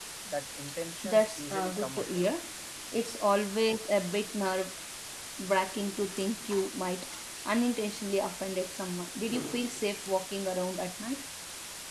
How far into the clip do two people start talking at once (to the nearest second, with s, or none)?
1 s